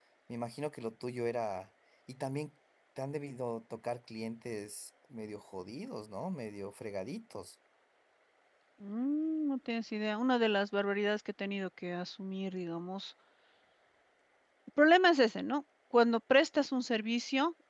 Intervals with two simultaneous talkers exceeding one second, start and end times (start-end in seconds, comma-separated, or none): none